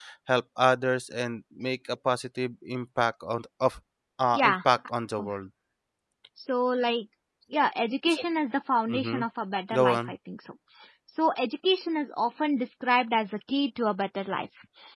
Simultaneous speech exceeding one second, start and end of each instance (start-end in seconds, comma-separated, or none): none